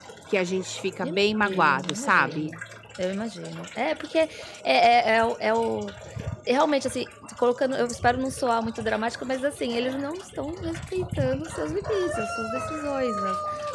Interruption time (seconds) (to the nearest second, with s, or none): 1 s